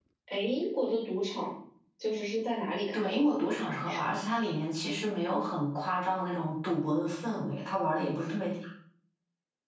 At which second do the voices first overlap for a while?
3 s

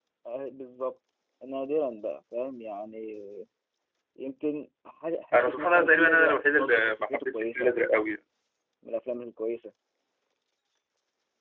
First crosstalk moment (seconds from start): 5 s

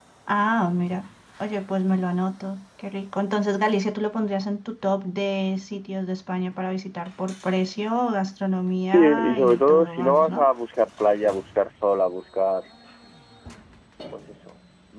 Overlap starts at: 9 s

